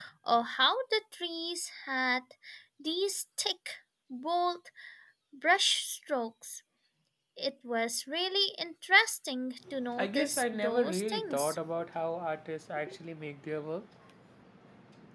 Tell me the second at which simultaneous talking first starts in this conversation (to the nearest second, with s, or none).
10 s